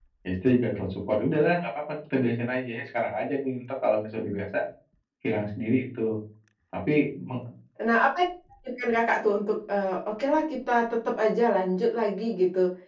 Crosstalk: none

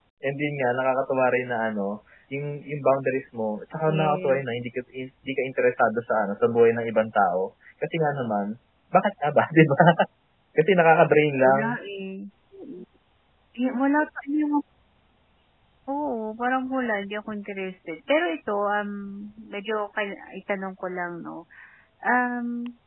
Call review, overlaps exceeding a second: none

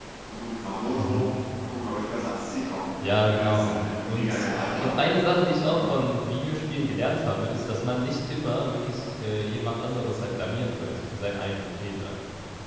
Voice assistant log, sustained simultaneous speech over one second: present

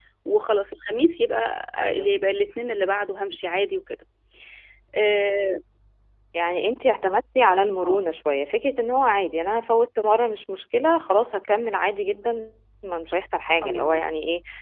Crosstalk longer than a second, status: none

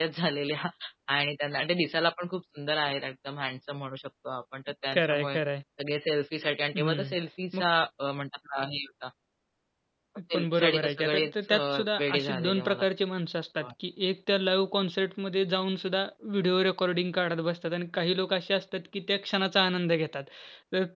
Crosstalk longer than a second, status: present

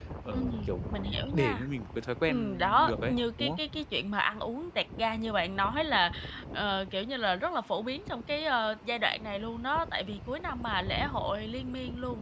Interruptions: present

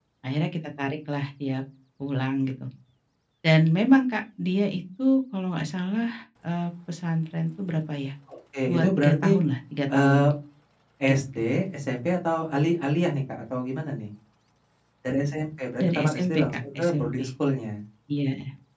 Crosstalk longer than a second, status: present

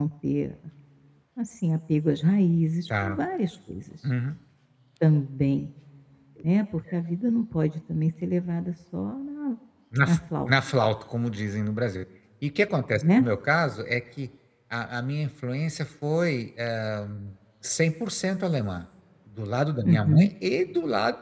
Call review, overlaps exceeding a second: none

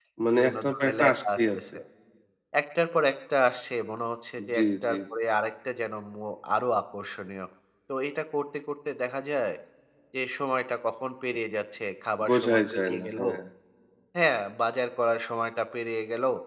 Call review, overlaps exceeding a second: present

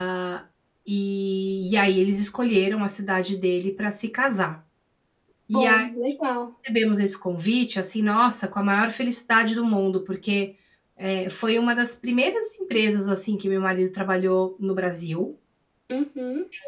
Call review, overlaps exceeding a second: none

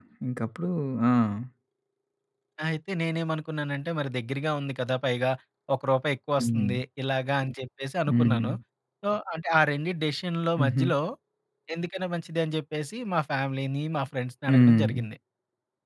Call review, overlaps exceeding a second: none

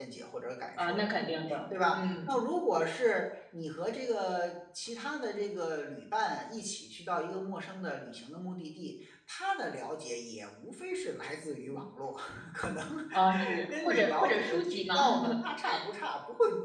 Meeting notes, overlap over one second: present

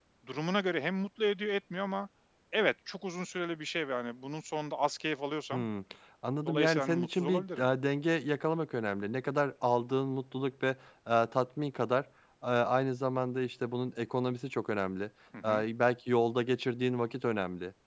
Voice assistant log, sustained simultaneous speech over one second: present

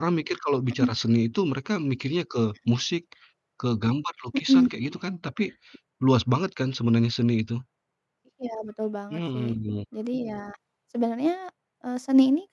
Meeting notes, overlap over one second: none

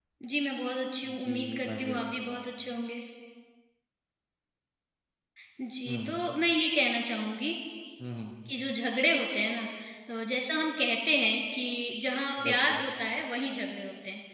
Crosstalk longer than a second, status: present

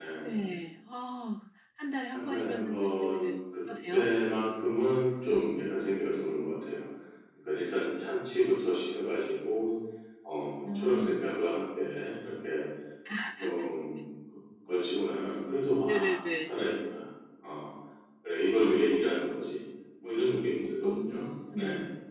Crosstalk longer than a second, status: present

